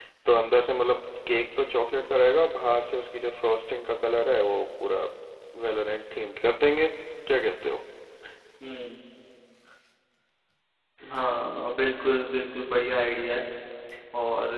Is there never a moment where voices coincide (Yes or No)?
Yes